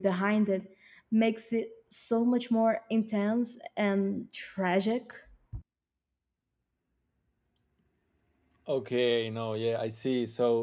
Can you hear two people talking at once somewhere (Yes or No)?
No